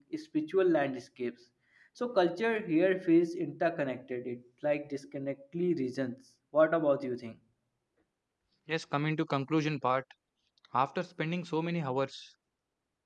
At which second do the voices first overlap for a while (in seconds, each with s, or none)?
none